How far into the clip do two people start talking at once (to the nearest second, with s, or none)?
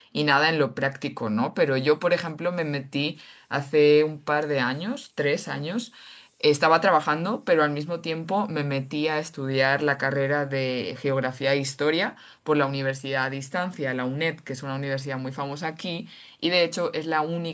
none